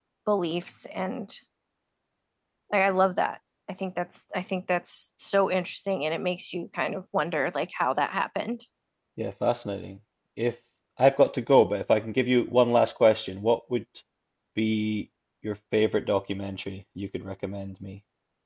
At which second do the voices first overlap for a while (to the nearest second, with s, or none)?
none